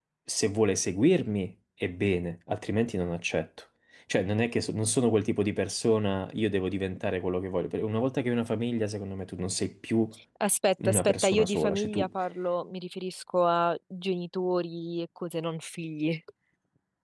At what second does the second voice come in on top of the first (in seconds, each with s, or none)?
10.8 s